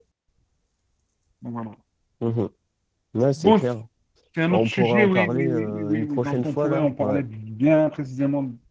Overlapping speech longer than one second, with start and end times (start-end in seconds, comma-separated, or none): 4.5-7.2